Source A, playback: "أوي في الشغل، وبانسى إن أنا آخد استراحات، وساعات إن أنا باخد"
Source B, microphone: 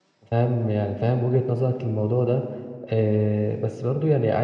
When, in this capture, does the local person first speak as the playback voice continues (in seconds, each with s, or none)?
0.3 s